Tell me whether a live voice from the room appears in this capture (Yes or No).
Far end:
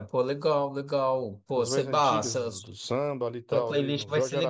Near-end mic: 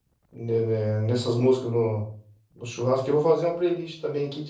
Yes